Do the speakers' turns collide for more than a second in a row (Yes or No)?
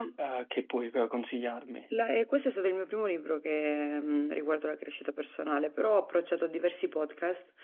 No